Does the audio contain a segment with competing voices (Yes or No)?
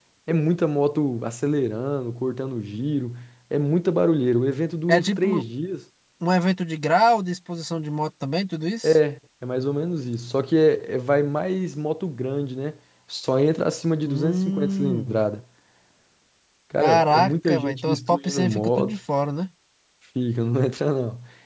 Yes